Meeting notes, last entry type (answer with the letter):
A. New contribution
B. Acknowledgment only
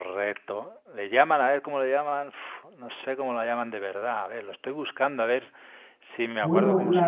A